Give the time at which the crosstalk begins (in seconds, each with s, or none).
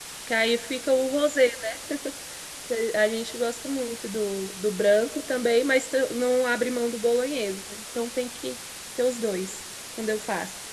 none